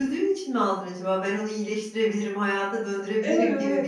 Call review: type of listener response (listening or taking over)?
taking over